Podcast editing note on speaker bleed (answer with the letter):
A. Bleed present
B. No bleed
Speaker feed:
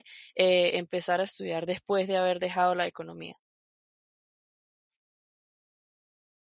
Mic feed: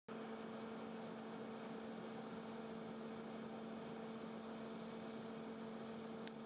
B